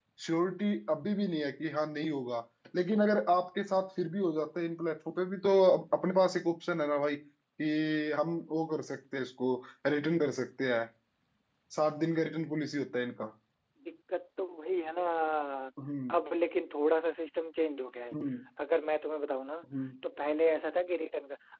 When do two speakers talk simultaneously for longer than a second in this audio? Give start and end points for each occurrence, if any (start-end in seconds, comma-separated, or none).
none